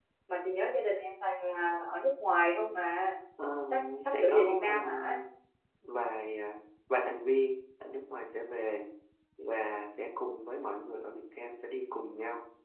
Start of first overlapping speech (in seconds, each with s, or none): 3.7 s